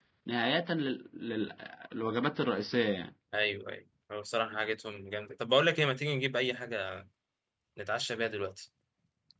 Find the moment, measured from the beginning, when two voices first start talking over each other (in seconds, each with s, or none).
none